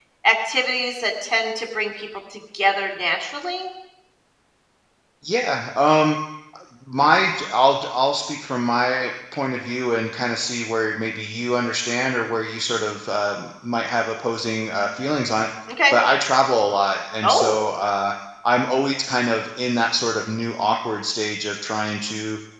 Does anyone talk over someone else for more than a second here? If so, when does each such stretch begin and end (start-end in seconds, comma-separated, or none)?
none